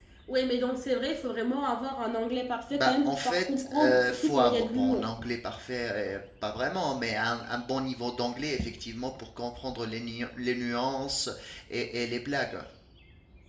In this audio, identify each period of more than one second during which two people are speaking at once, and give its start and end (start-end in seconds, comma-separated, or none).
2.7-5.1